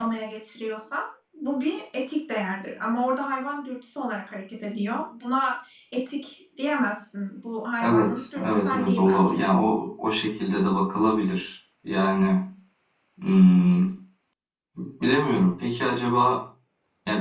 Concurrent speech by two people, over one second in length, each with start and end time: 7.8-9.4

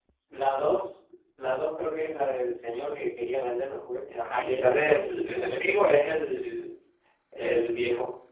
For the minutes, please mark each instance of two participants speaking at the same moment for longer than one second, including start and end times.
4.2-5.8

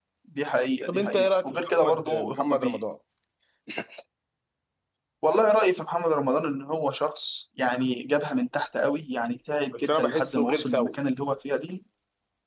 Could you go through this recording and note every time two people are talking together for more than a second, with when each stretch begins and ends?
0.9-2.8, 9.7-11.0

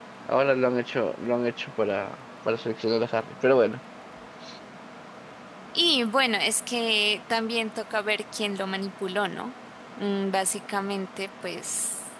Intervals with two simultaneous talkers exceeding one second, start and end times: none

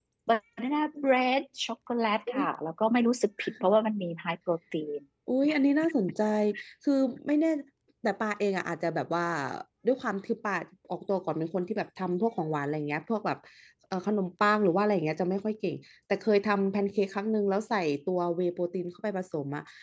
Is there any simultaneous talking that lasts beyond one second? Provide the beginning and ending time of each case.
none

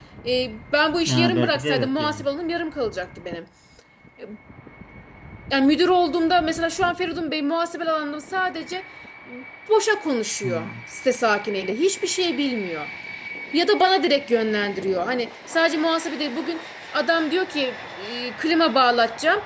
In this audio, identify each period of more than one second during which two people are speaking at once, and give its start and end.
1.1-2.2

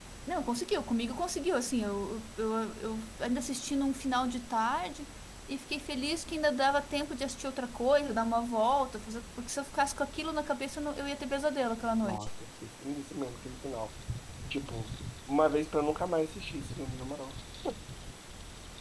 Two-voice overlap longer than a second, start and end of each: none

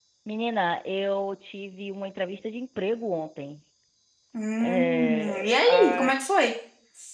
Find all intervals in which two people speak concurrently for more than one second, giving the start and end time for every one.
4.6-6.1

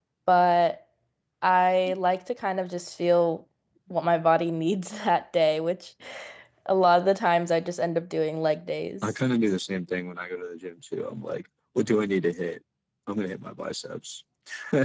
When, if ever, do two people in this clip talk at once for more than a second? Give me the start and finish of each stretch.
none

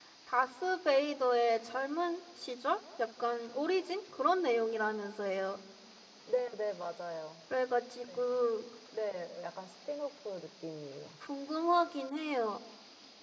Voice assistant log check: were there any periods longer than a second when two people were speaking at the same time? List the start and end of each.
none

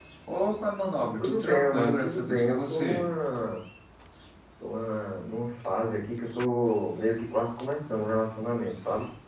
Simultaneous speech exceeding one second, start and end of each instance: 1.2-3.0

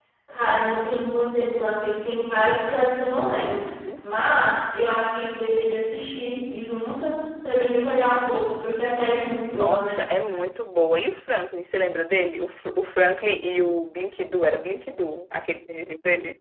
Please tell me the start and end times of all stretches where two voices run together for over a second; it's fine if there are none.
none

